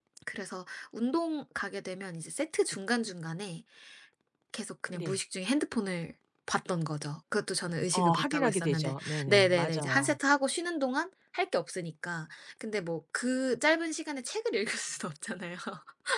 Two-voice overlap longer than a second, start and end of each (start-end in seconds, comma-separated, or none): 7.9-10.2